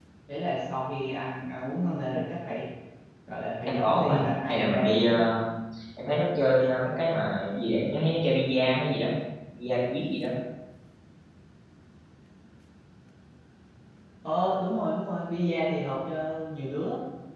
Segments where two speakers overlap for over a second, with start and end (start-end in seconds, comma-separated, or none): 3.7-5.2